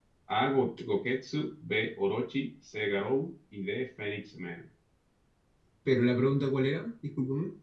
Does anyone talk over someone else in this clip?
No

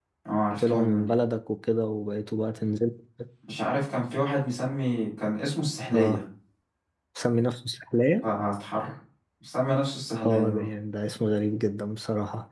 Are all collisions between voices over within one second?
Yes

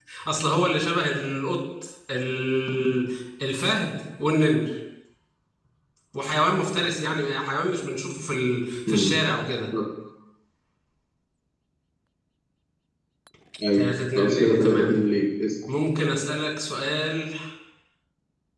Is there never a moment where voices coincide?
No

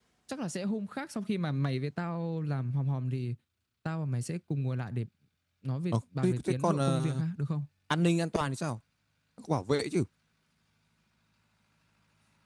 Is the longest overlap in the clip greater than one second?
Yes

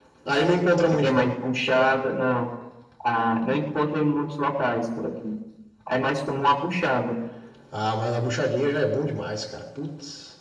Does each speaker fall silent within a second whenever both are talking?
Yes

